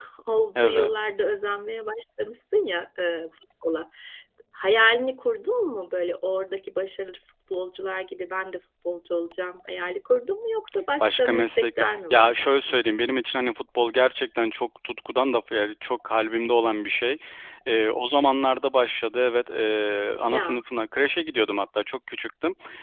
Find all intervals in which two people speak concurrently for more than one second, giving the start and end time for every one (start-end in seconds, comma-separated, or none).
11.0-12.8